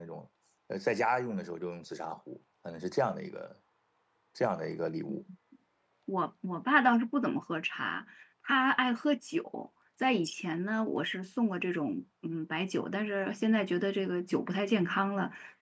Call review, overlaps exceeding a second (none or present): none